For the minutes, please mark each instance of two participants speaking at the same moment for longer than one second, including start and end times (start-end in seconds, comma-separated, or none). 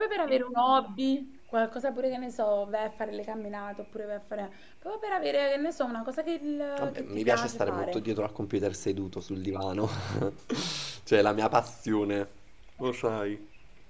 6.8-8.0